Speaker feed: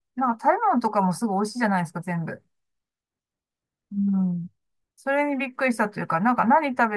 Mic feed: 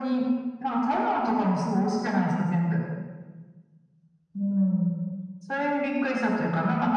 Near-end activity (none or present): none